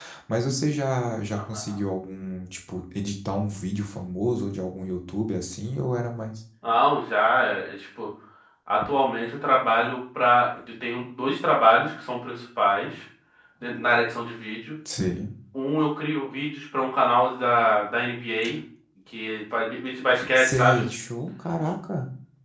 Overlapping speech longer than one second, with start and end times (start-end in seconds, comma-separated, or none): none